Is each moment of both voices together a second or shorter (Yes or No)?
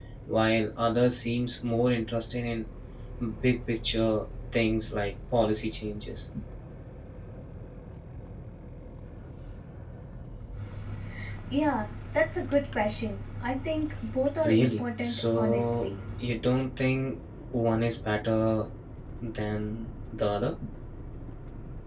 No